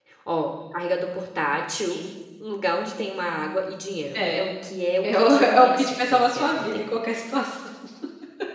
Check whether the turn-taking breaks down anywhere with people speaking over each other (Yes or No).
Yes